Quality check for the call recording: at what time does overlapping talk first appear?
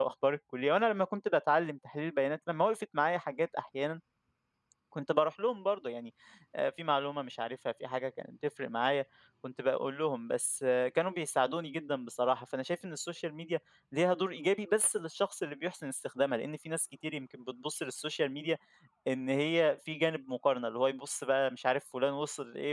none

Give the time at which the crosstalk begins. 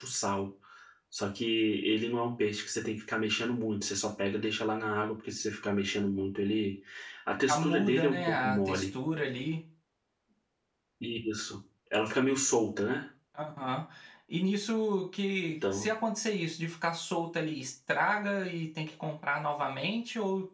7.5 s

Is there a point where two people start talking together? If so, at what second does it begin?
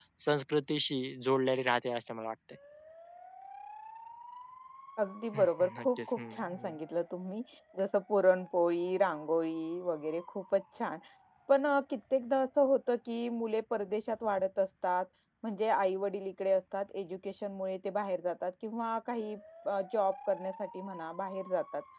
5.3 s

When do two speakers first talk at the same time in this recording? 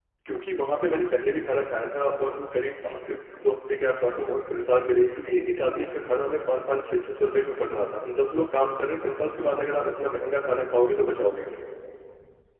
none

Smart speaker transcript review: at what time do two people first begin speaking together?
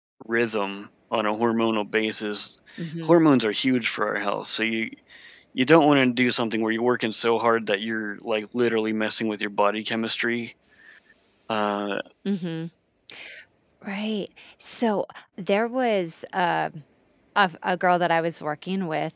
none

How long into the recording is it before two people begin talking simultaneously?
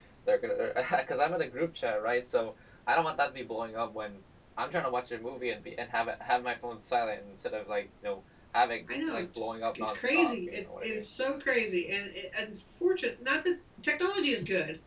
8.9 s

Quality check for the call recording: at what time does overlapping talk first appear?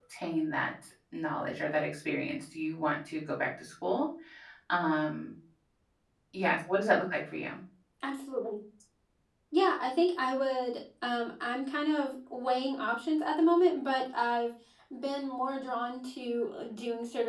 none

